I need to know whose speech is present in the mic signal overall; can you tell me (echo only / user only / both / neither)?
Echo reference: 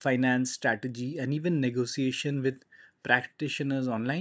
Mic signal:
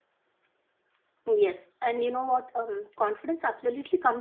user only